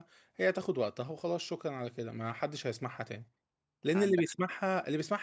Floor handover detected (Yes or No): No